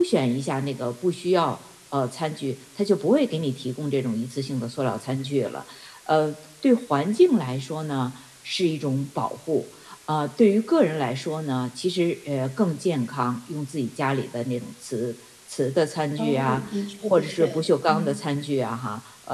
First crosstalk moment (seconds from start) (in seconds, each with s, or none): 16.2 s